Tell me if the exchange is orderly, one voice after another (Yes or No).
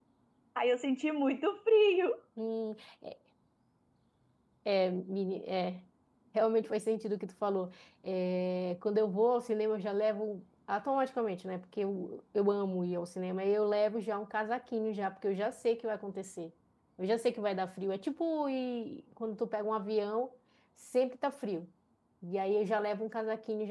Yes